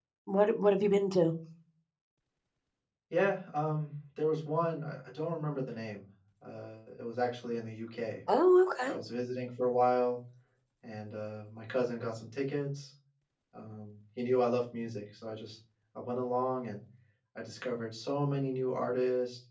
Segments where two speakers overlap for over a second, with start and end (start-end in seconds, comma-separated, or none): none